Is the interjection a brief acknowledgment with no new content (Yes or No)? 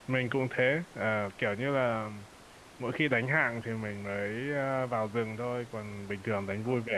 Yes